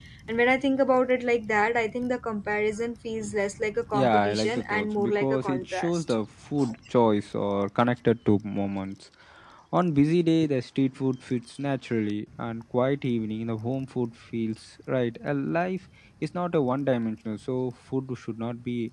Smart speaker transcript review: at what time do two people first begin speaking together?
4 s

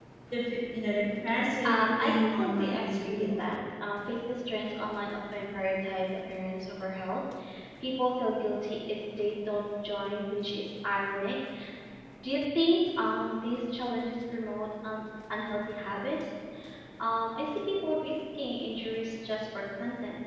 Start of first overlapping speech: 2 s

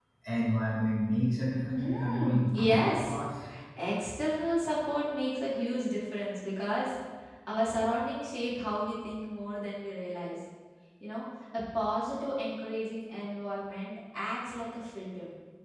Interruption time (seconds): 2 s

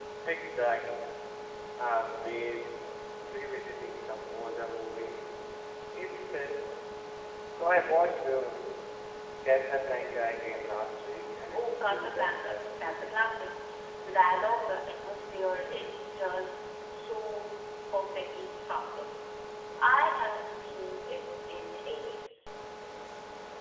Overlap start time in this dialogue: 12 s

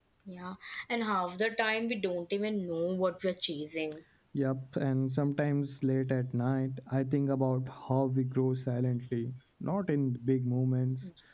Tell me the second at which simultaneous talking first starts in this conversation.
none

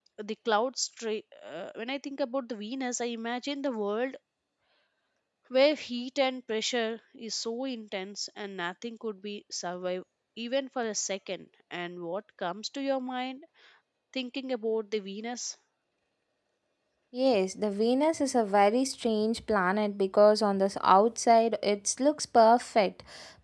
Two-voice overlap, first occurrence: none

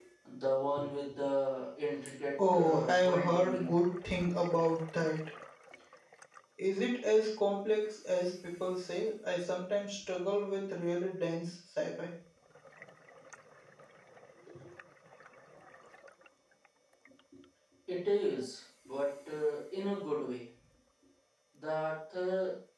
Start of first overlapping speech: 2 s

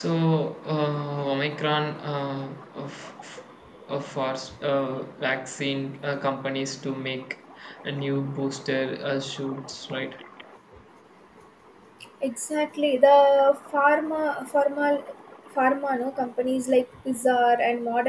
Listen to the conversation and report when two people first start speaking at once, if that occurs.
none

